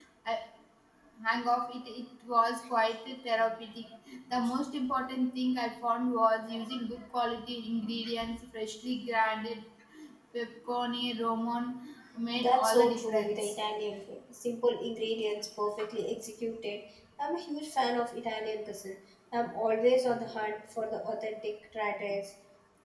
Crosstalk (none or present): present